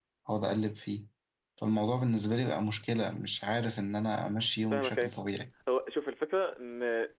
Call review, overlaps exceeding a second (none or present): none